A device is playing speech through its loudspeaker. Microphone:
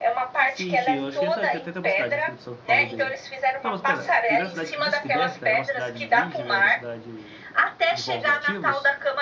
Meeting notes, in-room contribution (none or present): present